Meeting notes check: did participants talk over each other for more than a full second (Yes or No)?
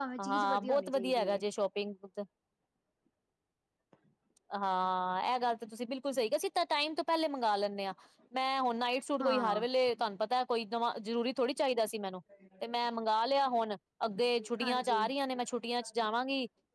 Yes